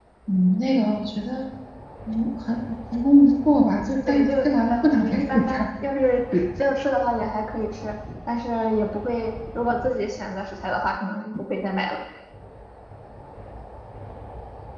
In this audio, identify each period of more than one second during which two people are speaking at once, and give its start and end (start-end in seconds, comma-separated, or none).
4.1-5.7